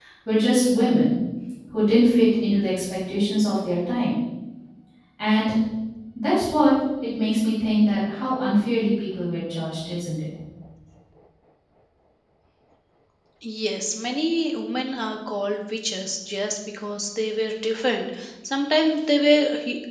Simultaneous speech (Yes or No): No